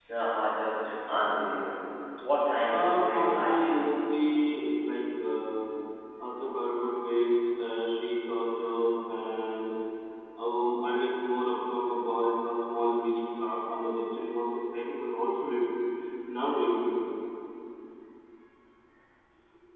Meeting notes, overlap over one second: present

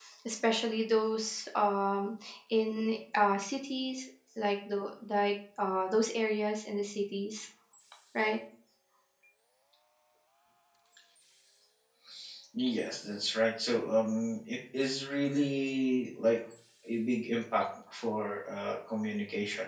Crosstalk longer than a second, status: none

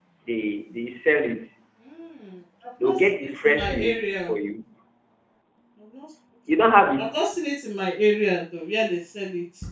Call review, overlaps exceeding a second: present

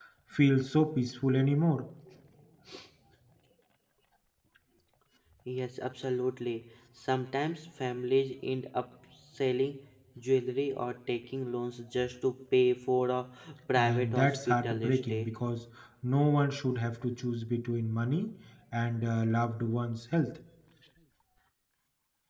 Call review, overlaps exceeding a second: present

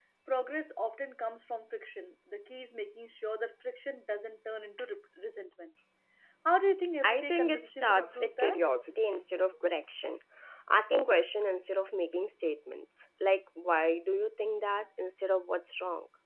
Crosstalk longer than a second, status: present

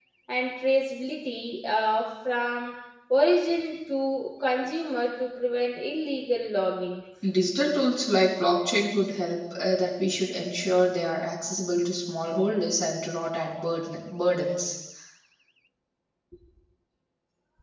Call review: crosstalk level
none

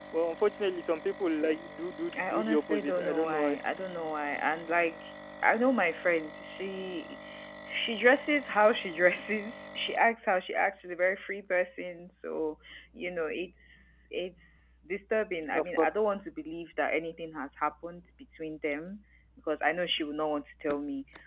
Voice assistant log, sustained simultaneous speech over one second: present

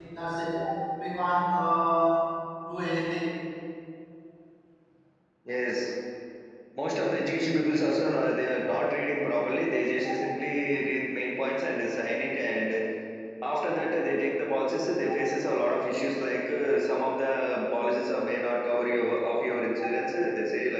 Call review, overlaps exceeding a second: none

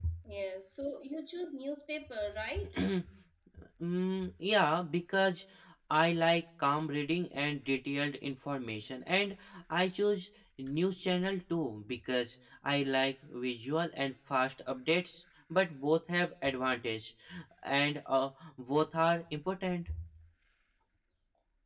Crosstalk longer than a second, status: none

